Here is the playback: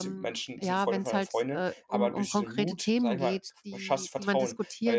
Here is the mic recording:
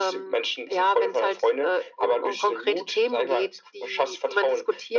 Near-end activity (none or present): none